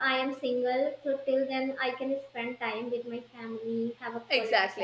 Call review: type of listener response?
taking over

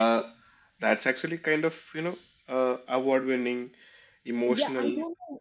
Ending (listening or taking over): taking over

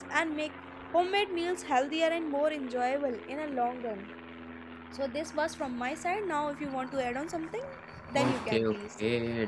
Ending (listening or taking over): taking over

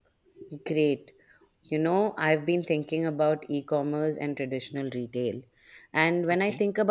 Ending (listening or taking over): listening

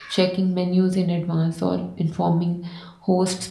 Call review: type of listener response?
listening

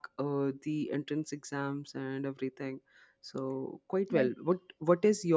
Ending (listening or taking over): listening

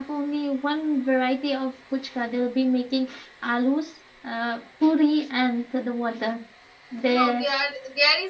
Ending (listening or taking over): taking over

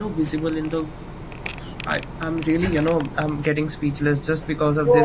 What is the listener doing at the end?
taking over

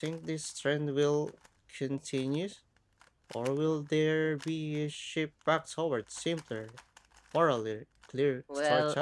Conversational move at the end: taking over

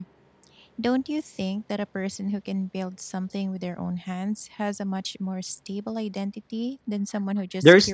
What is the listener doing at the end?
taking over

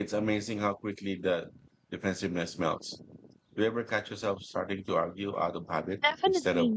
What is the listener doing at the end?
taking over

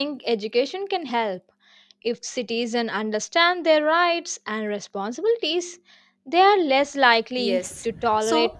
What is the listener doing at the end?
taking over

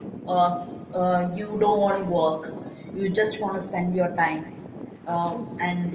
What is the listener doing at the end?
listening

